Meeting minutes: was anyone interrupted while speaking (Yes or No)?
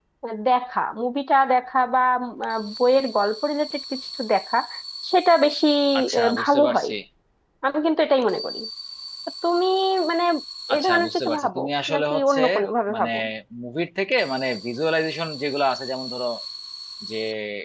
Yes